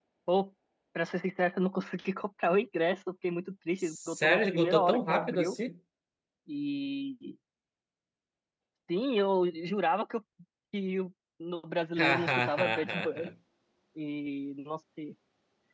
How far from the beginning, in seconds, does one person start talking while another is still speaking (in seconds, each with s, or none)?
3.8 s